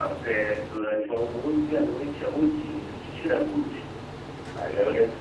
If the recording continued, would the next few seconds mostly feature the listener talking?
No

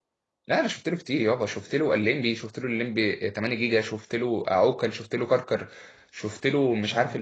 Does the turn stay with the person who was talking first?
Yes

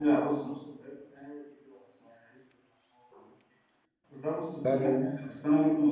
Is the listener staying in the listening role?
Yes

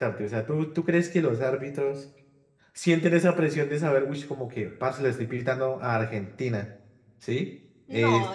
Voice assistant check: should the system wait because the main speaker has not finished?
No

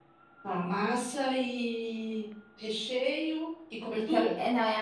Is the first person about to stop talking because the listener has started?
Yes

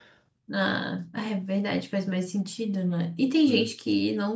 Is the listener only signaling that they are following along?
Yes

